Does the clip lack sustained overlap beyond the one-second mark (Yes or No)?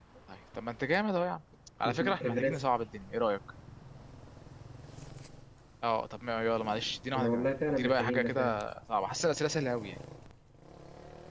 No